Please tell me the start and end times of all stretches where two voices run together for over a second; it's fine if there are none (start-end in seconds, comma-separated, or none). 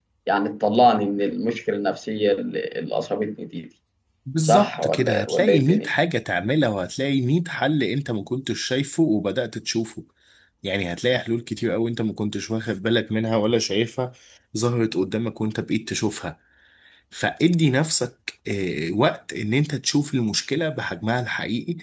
4.5-5.9